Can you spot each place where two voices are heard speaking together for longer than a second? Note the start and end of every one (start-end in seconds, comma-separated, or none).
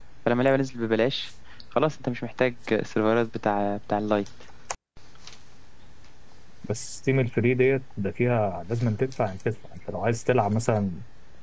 none